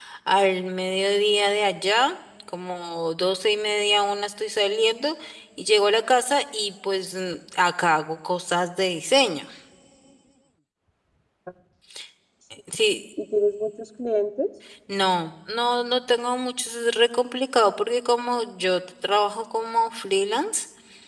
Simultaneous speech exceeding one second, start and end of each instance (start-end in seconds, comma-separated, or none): none